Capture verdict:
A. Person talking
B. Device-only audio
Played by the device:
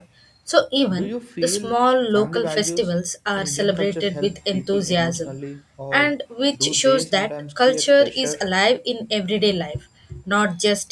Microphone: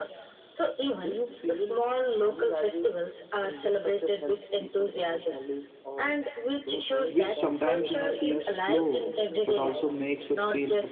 A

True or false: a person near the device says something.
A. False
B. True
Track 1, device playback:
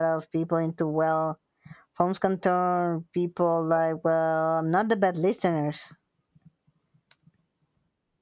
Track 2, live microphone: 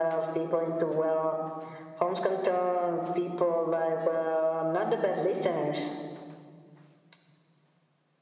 A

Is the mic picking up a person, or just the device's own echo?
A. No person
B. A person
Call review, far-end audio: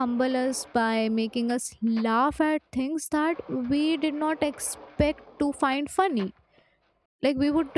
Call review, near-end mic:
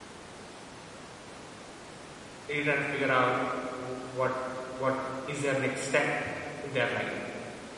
B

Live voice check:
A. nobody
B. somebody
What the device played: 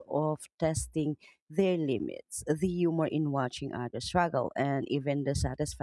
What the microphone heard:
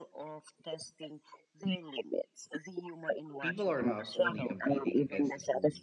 B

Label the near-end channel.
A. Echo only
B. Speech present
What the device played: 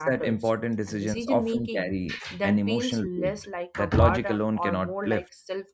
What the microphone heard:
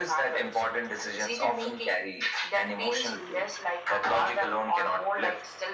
A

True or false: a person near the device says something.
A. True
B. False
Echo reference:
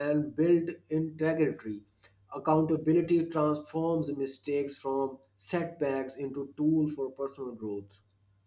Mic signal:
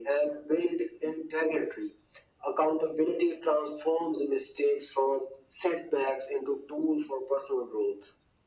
B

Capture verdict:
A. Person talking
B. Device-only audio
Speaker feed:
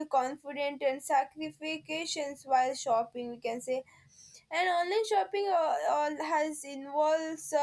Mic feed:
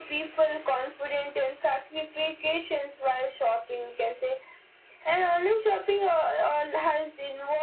B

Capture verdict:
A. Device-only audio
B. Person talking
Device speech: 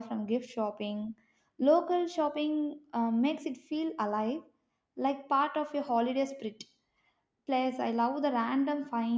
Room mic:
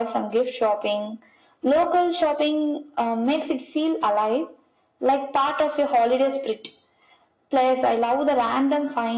A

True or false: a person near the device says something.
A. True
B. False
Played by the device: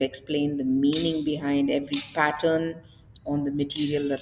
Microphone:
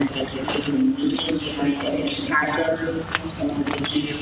B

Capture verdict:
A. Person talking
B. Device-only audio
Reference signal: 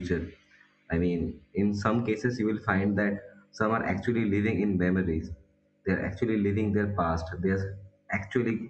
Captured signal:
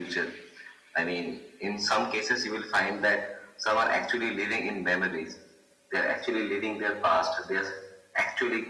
B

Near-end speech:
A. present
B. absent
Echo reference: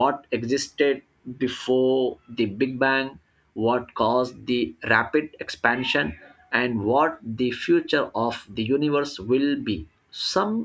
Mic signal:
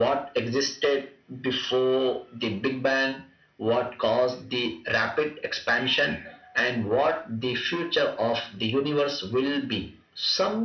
B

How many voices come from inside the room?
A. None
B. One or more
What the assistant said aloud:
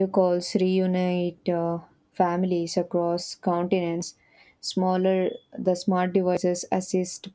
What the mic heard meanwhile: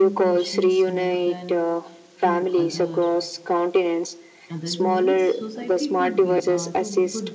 B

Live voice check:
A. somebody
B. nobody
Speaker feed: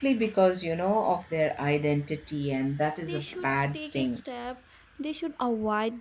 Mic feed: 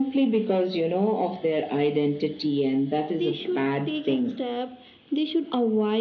B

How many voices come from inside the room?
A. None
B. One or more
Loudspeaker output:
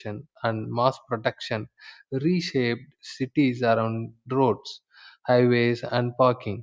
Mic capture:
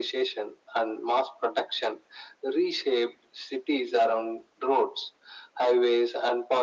A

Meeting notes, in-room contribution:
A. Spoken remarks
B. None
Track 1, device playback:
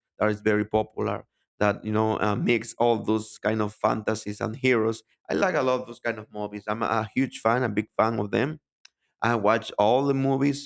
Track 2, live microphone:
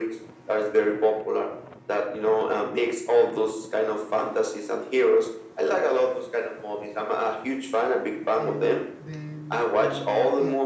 A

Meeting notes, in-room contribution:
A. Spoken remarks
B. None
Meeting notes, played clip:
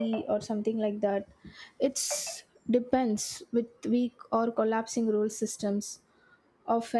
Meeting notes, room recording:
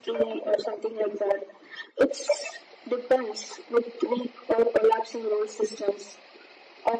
B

